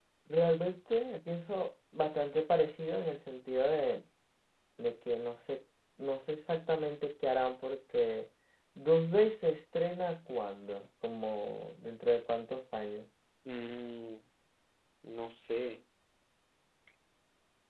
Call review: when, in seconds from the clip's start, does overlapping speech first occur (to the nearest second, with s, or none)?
none